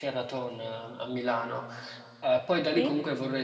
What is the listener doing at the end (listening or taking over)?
listening